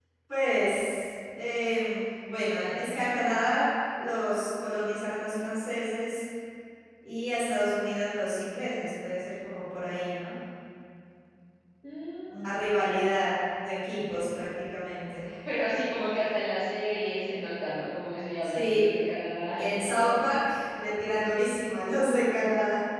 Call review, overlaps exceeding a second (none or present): none